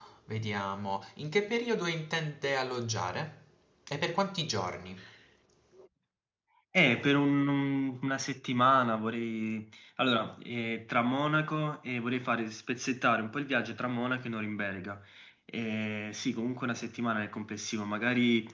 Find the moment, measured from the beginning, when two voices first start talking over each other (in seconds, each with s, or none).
none